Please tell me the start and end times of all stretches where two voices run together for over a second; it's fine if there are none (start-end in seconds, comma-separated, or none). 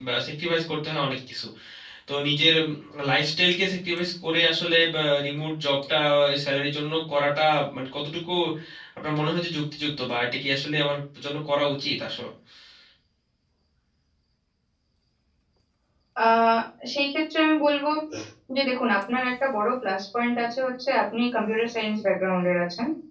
none